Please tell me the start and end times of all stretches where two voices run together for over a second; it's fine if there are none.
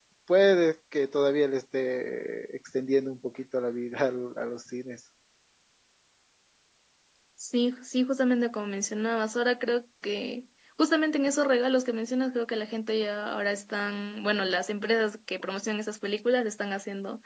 none

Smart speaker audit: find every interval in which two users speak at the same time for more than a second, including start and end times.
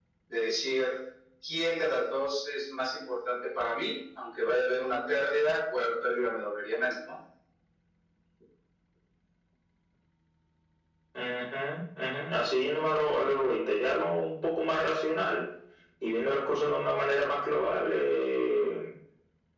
none

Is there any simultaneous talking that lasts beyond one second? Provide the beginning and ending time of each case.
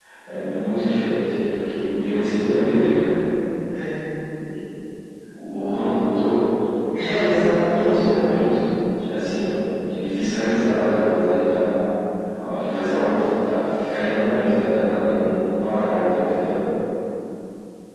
7.0-8.3

